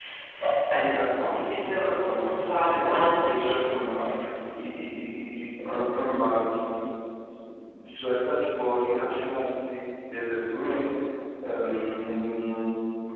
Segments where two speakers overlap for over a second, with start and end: 1.2-3.5

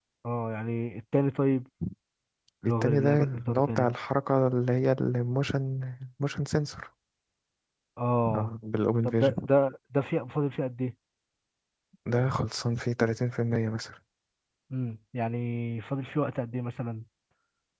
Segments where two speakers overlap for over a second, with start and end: 2.6-3.9

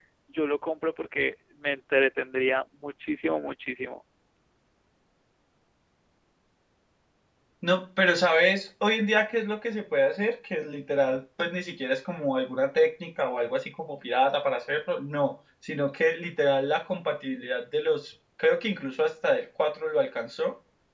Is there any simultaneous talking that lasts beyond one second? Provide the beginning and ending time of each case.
none

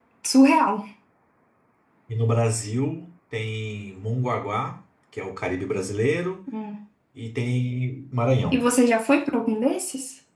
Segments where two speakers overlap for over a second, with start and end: none

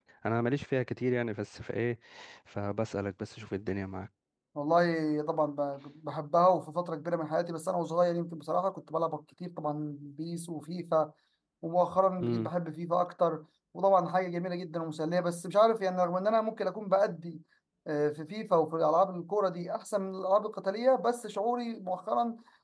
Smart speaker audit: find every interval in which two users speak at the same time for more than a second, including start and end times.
none

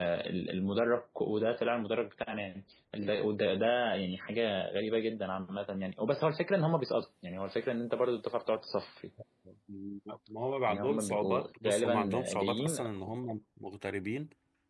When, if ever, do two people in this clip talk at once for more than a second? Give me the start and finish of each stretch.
10.7-12.8

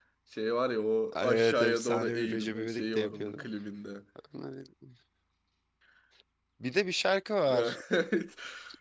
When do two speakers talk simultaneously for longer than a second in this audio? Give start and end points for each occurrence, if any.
1.2-3.5

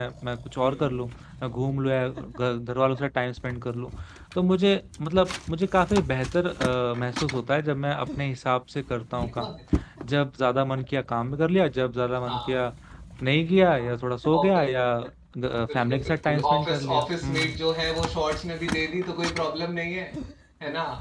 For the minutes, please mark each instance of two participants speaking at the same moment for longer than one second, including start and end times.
15.7-17.6

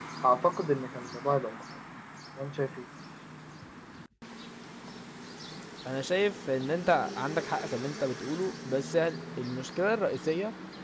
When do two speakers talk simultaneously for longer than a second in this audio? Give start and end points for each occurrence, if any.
none

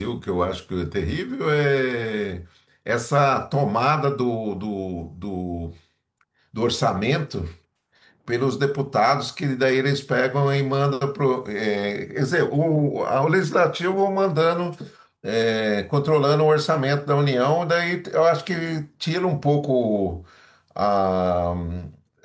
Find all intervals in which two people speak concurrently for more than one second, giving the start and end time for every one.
none

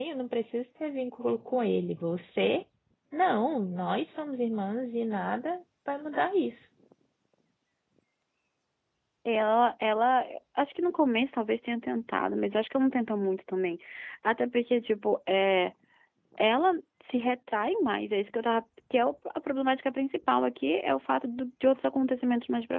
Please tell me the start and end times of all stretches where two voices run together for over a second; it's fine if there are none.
none

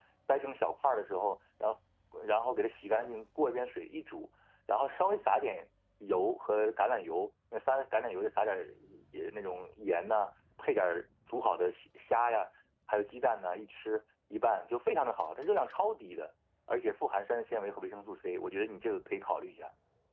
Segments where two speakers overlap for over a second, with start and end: none

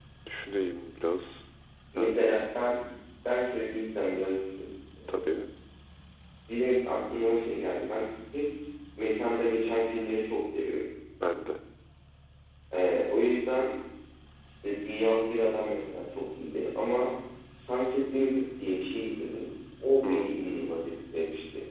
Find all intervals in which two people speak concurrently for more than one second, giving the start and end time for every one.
none

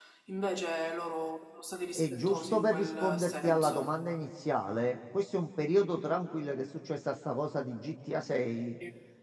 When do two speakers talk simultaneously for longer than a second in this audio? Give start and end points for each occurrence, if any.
2.0-4.0

